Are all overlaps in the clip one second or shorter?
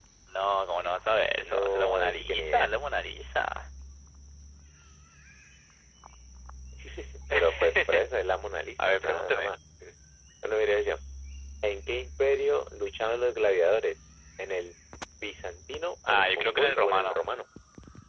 No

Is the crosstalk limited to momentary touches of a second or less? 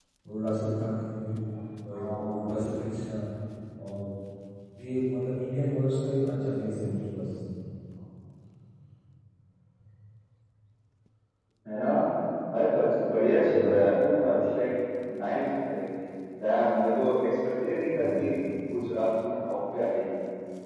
Yes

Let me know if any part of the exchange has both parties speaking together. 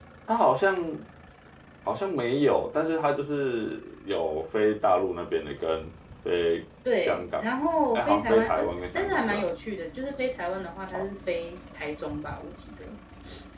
Yes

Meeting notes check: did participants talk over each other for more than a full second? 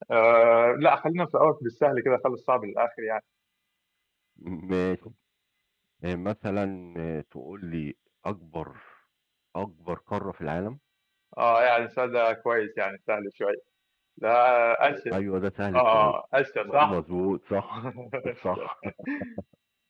No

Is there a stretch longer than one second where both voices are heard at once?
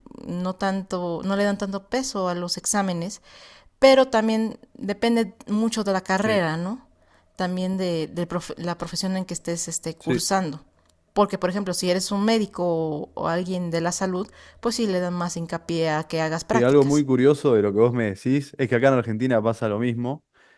No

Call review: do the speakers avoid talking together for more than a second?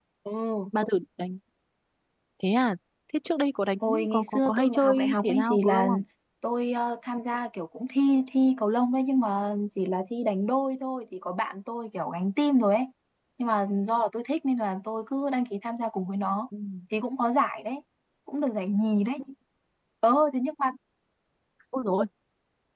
No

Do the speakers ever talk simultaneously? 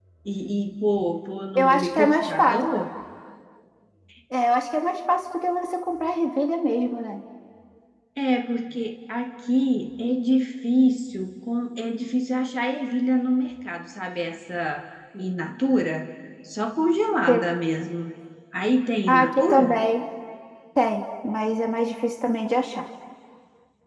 Yes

